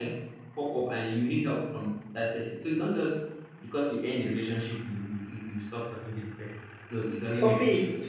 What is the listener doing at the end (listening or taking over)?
taking over